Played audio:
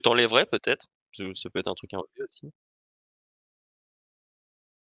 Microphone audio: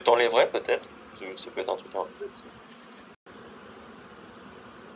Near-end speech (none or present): none